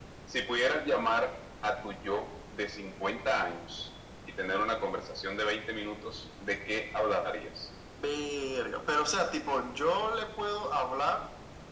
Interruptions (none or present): none